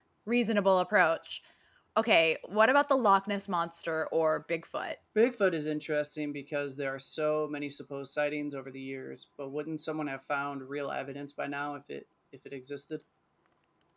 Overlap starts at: none

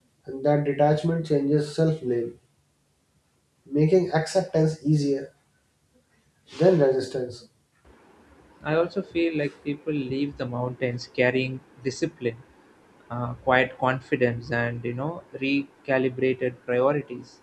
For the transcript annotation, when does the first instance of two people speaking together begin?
none

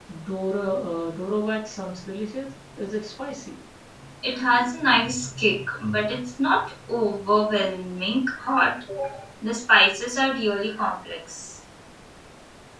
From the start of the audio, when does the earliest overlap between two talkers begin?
none

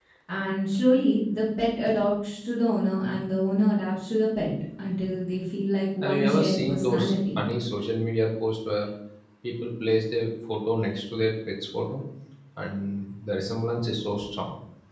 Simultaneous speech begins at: 6 s

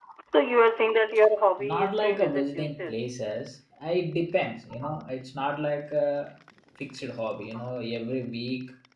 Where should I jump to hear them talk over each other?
2 s

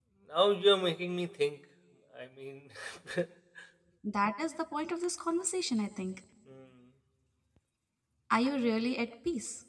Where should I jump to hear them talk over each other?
none

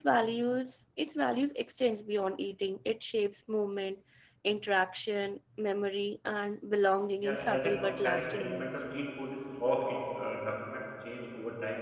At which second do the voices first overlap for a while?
7 s

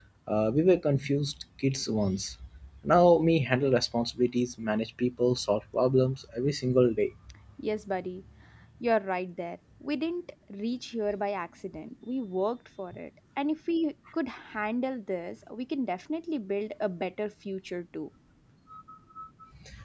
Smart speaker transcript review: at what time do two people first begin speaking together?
none

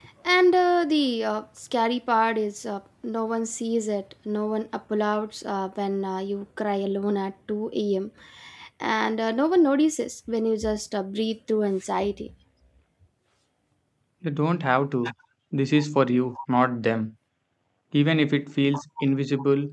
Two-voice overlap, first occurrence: none

